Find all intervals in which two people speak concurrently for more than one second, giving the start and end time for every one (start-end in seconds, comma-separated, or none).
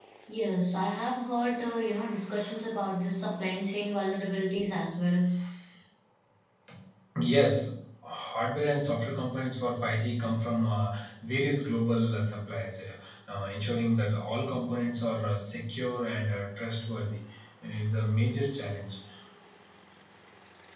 none